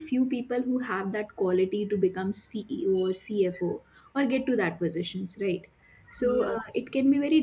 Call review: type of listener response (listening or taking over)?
listening